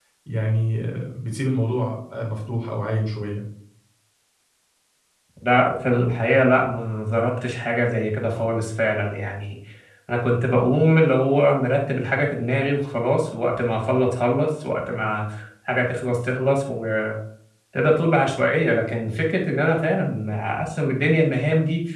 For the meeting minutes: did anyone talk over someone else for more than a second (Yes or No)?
No